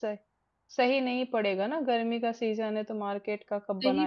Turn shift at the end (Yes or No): Yes